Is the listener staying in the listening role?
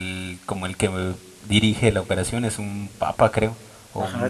No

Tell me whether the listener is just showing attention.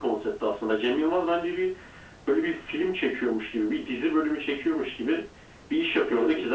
Yes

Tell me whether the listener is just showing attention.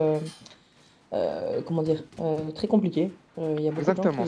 No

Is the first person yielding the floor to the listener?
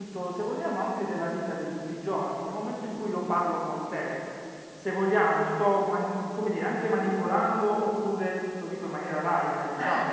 No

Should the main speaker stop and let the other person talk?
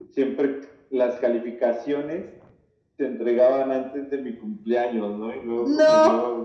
No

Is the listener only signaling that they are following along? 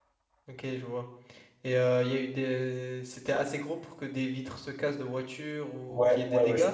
No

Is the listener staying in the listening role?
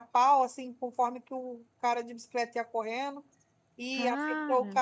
Yes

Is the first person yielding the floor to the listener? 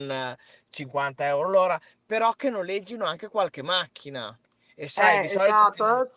Yes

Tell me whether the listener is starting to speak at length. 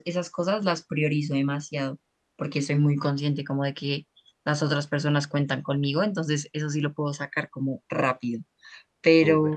No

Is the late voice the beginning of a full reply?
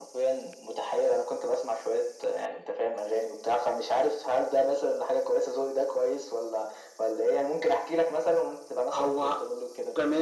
Yes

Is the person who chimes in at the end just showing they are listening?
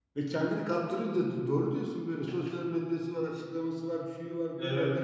Yes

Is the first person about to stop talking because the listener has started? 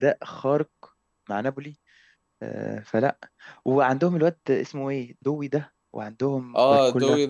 Yes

